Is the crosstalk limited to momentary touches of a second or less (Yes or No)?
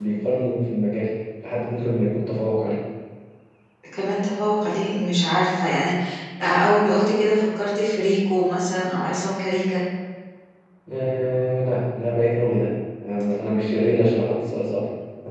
Yes